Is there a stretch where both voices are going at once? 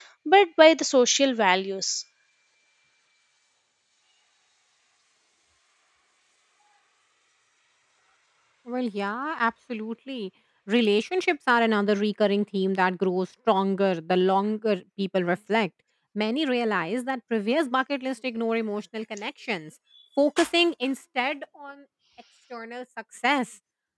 No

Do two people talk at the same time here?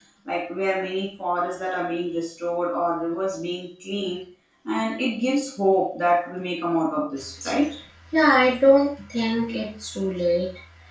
No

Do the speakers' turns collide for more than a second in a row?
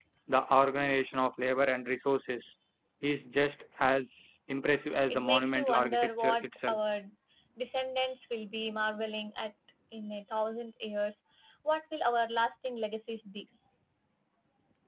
Yes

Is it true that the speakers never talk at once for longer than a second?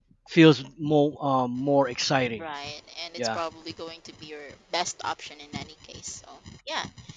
Yes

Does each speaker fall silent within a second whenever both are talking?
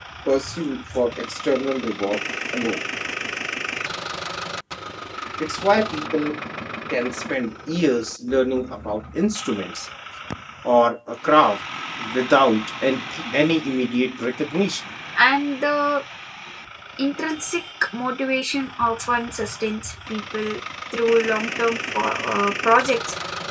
Yes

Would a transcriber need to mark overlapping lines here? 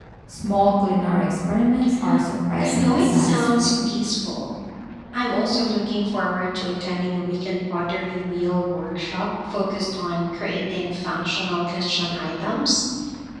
Yes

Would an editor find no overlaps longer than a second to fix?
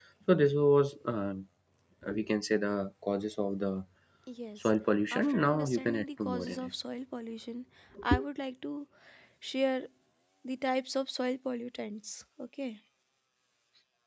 No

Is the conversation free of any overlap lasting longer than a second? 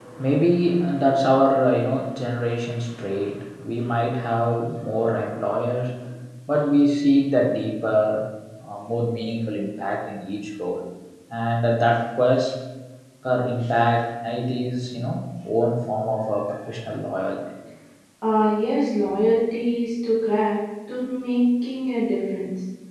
Yes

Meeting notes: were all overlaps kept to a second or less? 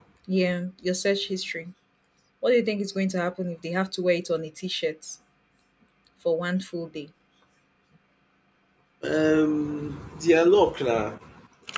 Yes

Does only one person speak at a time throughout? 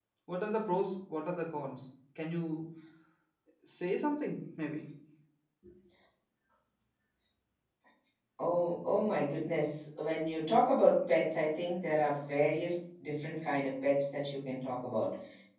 Yes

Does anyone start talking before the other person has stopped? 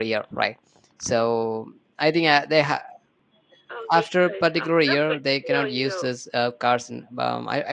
Yes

